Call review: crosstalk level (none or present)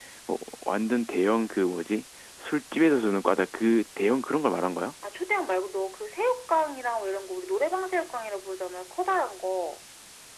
none